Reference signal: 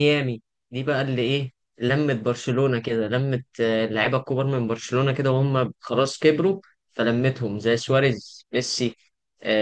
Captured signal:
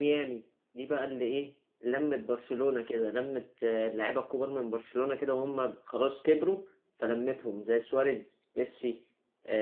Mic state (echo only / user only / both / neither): echo only